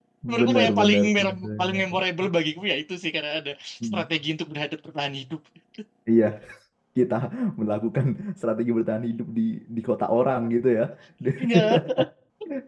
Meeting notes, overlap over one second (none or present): present